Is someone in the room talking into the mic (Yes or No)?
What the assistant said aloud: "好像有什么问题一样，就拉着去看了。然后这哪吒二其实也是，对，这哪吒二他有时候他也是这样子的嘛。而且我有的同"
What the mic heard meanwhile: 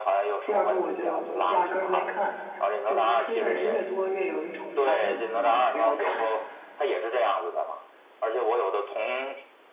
Yes